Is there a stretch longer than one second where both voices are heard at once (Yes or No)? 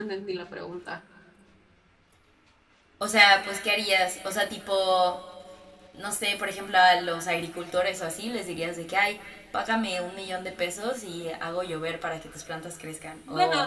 No